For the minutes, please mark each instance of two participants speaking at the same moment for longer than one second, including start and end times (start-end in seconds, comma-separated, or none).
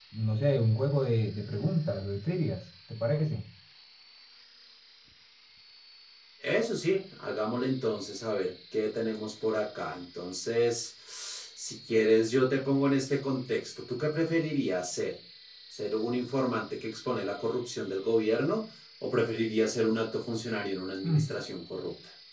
none